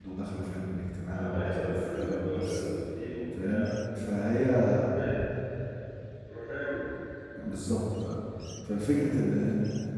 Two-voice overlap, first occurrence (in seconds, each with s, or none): 1.1 s